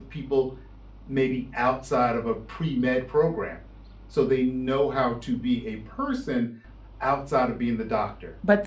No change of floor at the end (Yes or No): No